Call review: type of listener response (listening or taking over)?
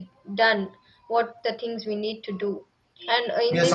taking over